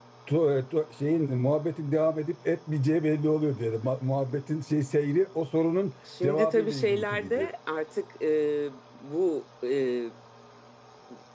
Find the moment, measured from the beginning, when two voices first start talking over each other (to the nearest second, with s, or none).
6 s